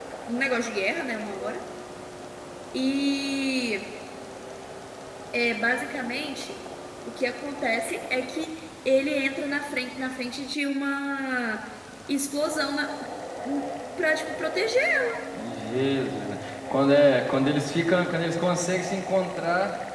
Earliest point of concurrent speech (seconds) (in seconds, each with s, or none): none